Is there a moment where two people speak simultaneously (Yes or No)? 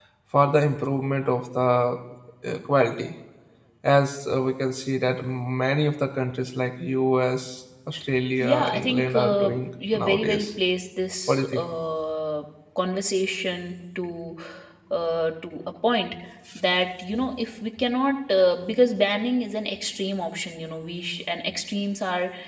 Yes